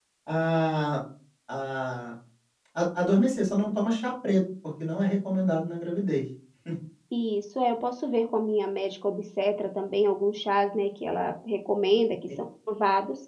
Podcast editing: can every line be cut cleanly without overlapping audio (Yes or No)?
Yes